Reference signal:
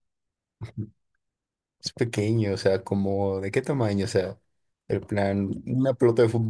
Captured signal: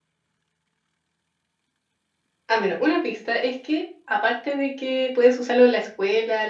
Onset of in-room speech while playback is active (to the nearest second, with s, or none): 2 s